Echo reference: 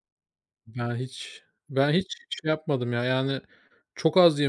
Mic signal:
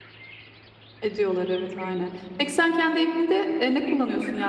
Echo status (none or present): none